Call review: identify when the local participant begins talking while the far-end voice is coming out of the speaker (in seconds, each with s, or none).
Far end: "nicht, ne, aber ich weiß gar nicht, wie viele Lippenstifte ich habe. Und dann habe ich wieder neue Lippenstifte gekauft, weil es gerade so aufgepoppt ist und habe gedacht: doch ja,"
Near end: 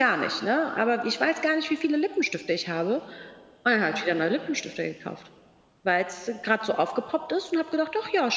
none